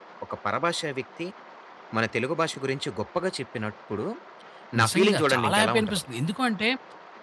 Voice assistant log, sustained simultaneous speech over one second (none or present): present